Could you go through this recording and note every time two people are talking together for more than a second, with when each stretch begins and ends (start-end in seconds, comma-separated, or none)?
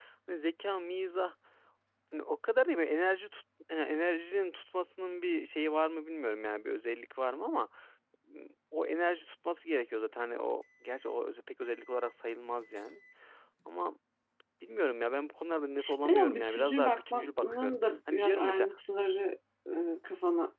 16.1-18.7